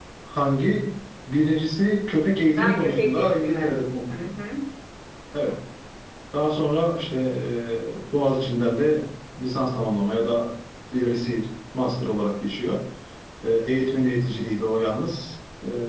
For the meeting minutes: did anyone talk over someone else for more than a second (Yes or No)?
Yes